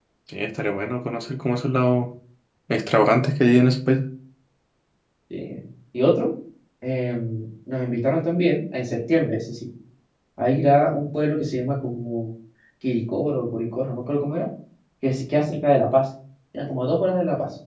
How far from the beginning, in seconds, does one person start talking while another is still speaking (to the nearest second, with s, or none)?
none